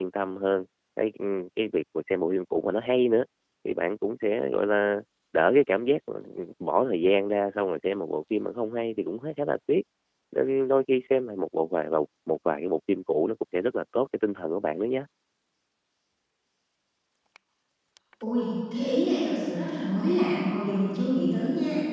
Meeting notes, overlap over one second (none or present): none